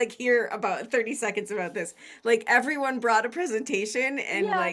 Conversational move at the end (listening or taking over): taking over